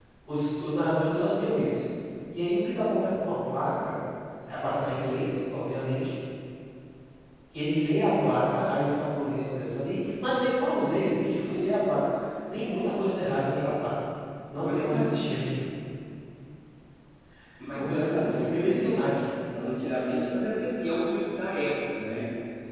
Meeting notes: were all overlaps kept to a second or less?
No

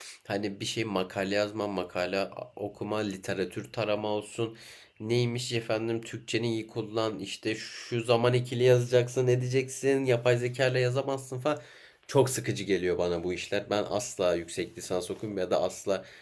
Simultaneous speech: No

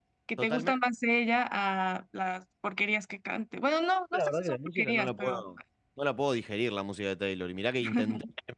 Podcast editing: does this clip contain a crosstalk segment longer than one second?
Yes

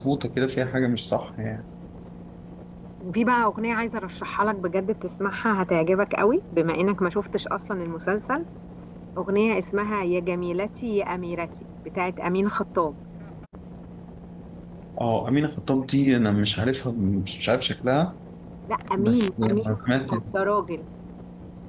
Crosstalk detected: Yes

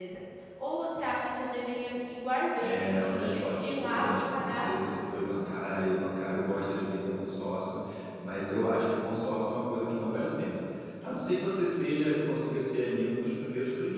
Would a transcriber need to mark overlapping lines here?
Yes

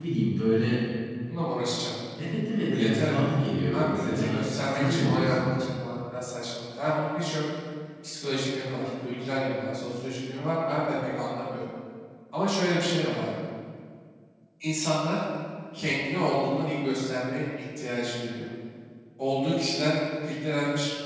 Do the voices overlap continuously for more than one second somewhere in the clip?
Yes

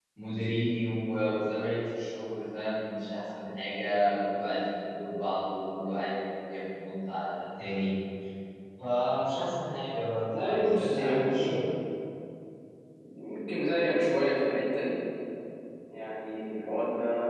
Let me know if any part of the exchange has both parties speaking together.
Yes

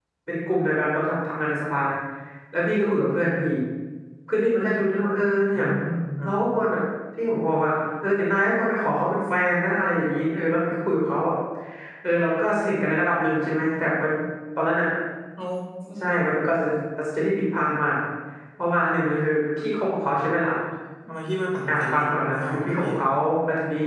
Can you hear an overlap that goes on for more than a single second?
Yes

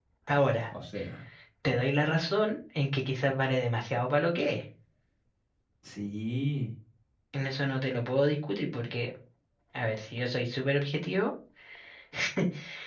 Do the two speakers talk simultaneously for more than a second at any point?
No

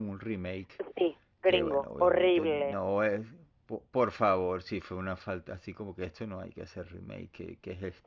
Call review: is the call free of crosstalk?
No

